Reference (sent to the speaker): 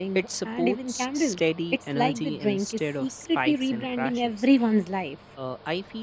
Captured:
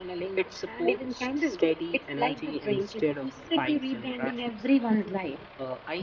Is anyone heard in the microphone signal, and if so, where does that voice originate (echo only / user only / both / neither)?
echo only